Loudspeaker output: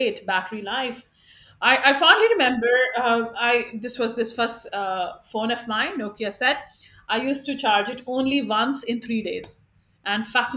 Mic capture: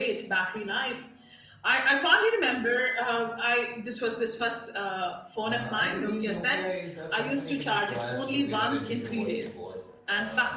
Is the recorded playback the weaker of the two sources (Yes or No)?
No